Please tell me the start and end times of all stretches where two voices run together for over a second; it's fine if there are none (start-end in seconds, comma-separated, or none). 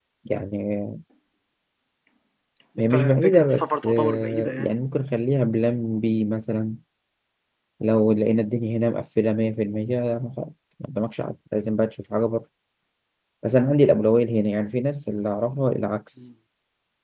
2.9-4.7